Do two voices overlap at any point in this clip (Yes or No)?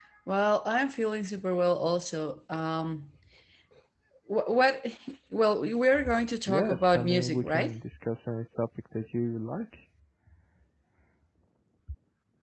Yes